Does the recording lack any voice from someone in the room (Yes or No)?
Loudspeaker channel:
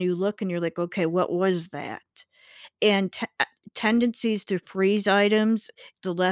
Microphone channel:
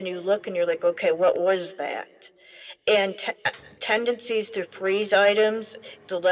Yes